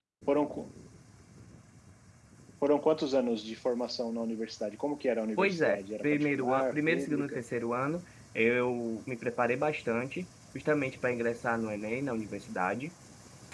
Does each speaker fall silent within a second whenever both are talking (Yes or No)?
No